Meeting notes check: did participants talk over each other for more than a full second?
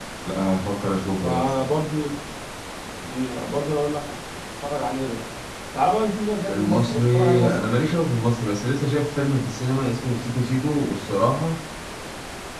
Yes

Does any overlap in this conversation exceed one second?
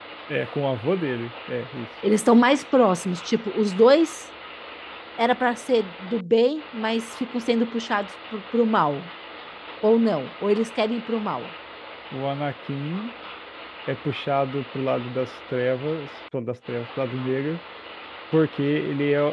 No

